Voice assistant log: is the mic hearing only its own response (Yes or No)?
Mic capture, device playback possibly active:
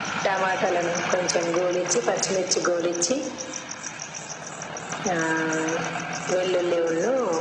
Yes